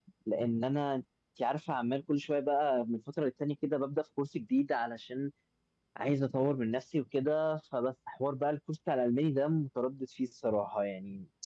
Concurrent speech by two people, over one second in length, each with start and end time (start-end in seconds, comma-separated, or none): none